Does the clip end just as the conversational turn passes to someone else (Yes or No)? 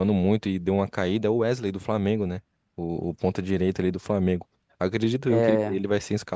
No